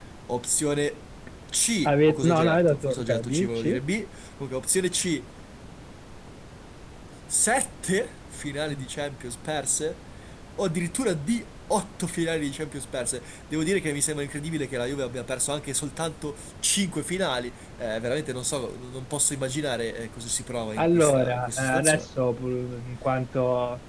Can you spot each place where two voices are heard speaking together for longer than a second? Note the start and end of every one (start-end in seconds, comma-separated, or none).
1.9-3.6, 20.8-22.1